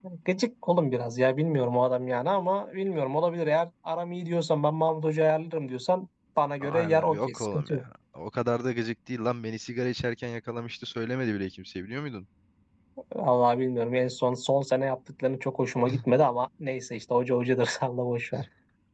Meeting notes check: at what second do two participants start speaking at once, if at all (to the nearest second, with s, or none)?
7 s